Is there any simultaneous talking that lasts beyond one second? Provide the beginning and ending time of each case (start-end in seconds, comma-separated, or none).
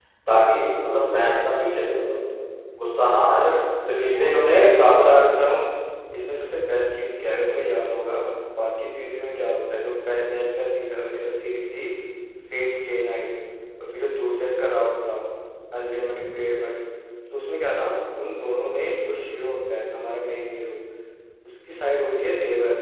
4.0-5.2